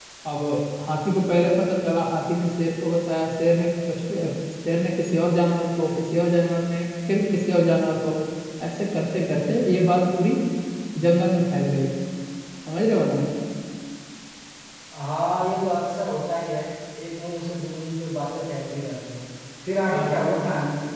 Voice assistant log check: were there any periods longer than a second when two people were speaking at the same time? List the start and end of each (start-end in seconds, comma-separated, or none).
none